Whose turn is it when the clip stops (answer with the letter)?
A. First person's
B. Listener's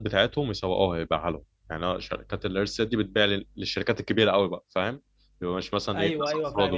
B